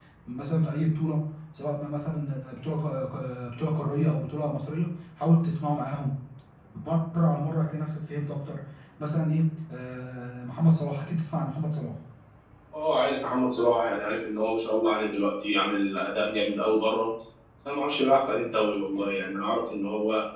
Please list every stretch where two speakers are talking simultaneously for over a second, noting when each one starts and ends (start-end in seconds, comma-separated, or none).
none